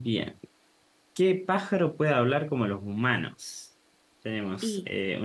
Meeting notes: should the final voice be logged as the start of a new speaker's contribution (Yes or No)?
No